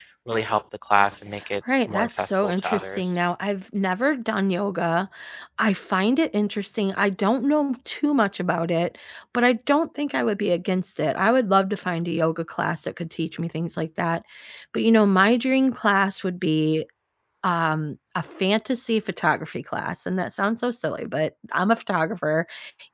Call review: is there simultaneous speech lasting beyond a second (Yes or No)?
Yes